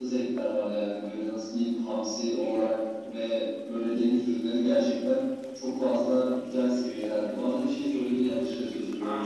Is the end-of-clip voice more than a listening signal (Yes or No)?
Yes